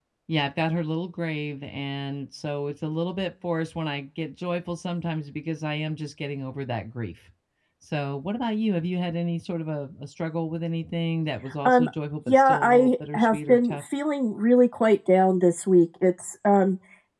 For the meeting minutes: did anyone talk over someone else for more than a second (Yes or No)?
Yes